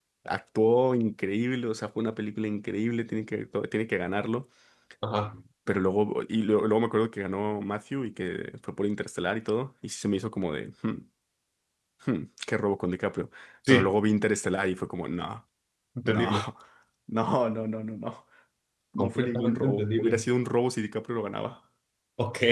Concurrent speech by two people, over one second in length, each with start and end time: 19.0-20.2

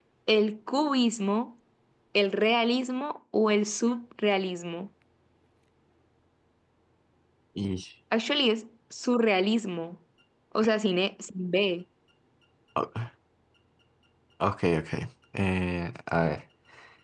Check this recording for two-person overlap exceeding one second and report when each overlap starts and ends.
none

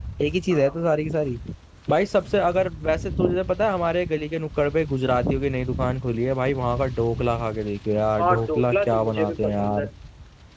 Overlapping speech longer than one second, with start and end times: 8.2-9.8

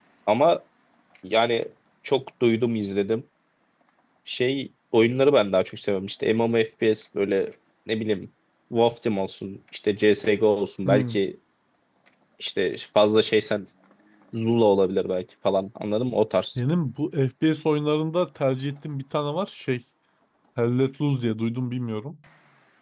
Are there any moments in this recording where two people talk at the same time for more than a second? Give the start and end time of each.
none

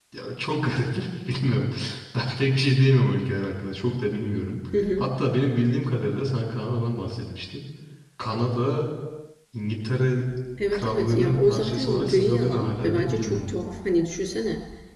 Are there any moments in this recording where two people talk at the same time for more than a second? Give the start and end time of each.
10.7-13.6

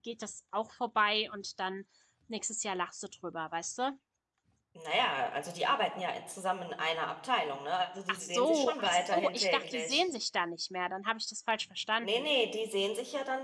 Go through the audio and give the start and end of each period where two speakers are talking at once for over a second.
8.1-10.0

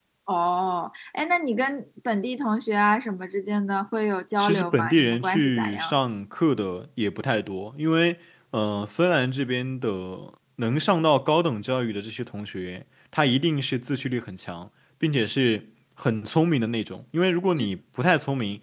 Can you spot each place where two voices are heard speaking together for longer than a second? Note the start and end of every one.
4.4-5.9

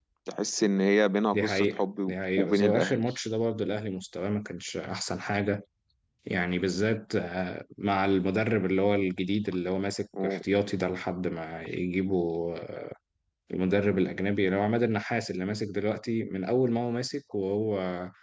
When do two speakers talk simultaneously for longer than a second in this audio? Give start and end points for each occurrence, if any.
1.3-3.0

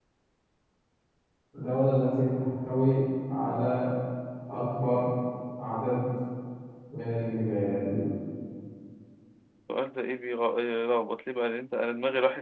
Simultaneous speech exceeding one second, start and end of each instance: none

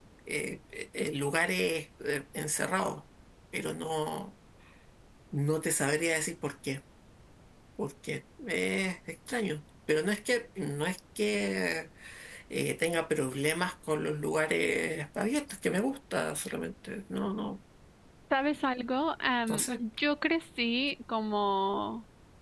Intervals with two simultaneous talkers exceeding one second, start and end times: none

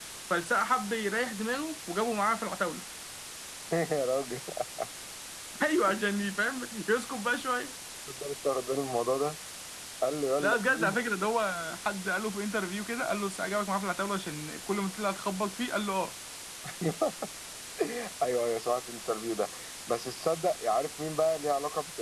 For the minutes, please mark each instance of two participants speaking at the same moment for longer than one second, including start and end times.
none

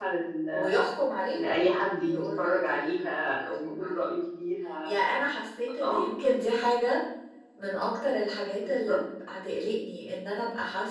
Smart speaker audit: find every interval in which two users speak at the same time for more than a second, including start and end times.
2.0-4.0

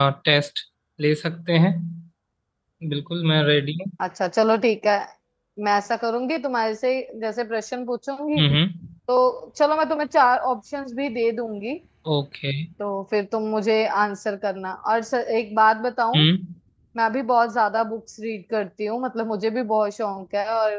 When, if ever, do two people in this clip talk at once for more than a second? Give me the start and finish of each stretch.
none

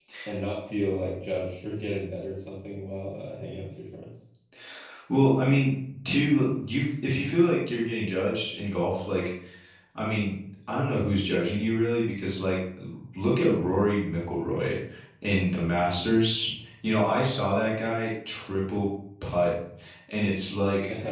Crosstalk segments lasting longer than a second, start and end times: none

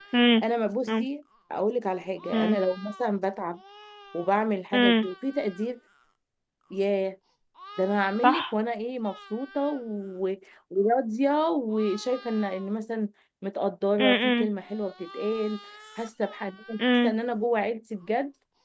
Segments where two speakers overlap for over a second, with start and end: none

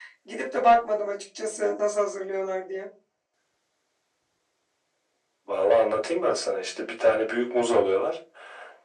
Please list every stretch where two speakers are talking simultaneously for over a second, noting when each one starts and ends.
none

